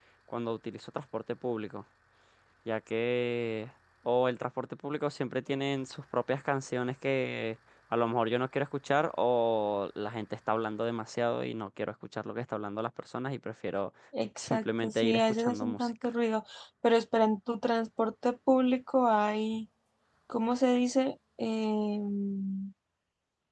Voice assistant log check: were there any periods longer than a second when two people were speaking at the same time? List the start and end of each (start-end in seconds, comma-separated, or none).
14.4-15.9